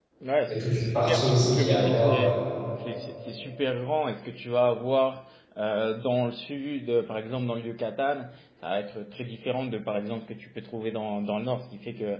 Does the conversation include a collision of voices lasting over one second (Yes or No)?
Yes